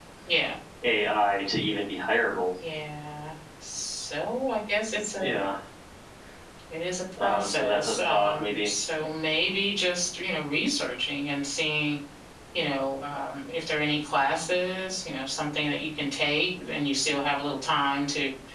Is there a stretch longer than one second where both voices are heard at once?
Yes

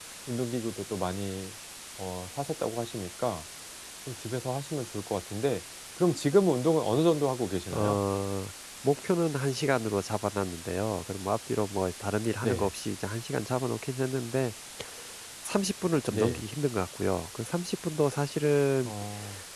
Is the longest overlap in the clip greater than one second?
No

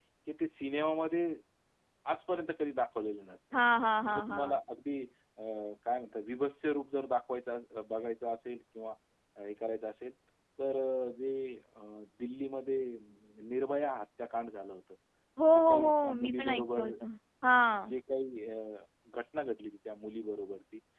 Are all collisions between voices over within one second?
No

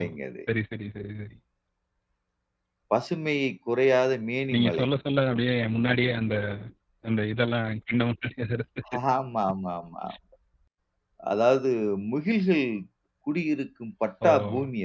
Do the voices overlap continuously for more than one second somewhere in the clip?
No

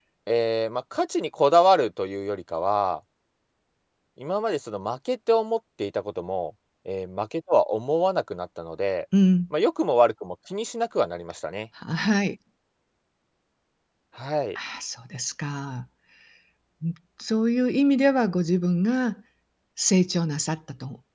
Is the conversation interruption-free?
Yes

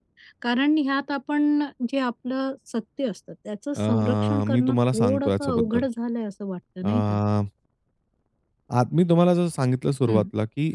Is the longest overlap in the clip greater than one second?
Yes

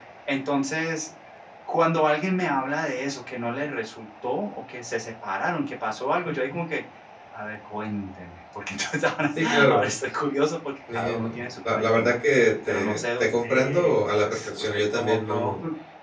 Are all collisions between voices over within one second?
No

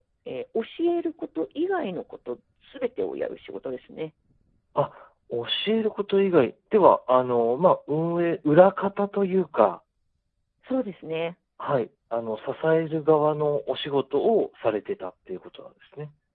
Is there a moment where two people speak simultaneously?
No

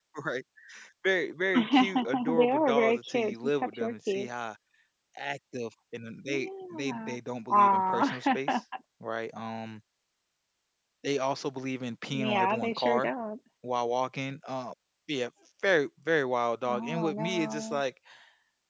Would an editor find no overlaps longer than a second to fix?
No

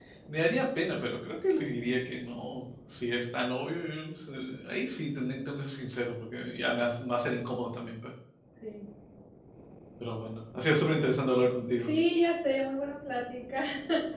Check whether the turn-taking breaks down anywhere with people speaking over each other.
No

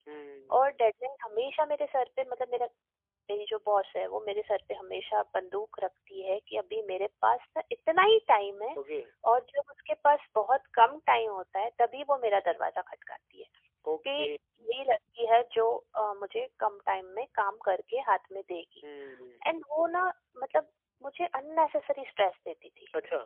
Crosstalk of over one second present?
No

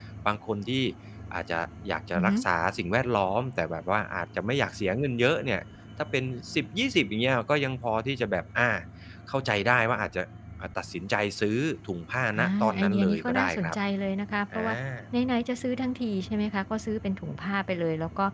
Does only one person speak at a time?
No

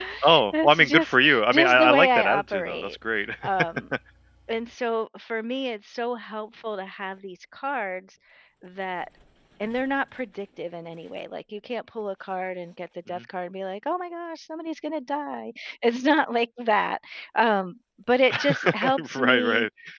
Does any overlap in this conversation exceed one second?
Yes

